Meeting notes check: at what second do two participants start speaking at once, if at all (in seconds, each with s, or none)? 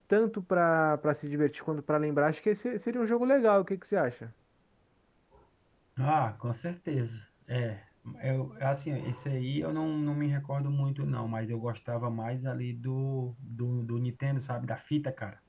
none